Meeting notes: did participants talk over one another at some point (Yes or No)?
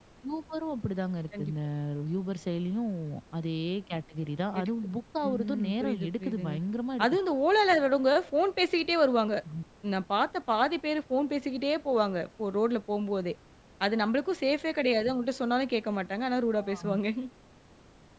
Yes